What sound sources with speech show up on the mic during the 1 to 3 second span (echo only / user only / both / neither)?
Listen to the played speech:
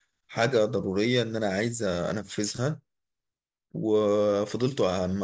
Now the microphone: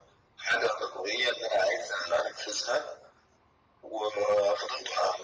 echo only